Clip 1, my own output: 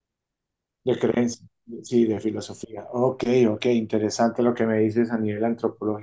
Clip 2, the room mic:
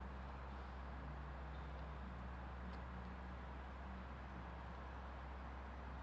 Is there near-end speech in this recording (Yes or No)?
No